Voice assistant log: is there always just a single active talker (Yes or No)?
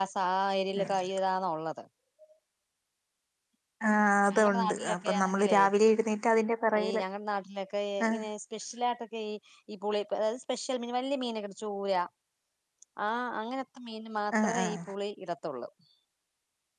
No